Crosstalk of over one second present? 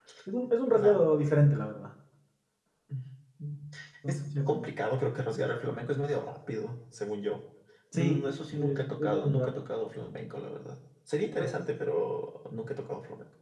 Yes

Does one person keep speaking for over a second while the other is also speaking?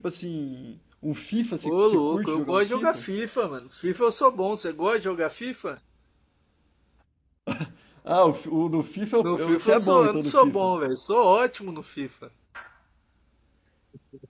Yes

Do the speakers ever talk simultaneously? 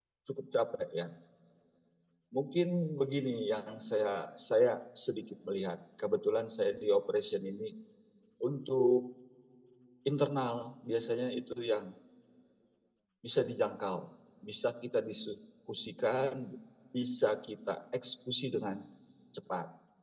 No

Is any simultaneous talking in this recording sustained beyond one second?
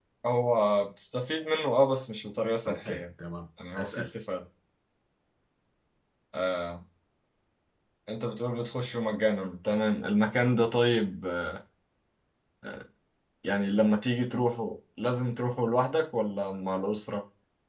No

